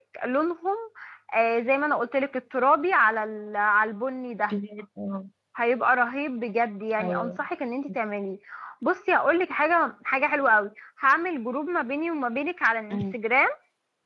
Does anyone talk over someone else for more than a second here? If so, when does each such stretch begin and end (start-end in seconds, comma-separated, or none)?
none